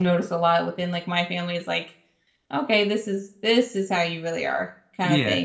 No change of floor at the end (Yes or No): No